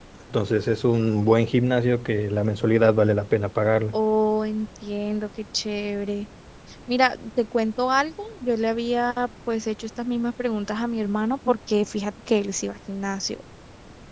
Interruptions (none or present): none